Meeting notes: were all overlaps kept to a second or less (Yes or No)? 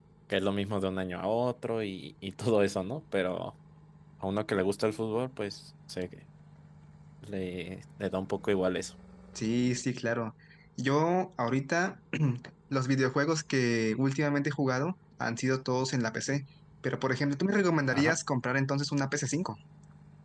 Yes